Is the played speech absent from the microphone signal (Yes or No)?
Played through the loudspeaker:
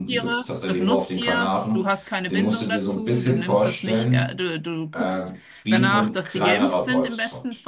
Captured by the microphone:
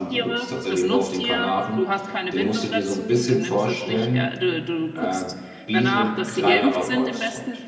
No